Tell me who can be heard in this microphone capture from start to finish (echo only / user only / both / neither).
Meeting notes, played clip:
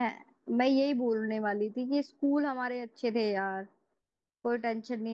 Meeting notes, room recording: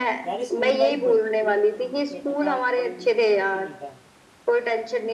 both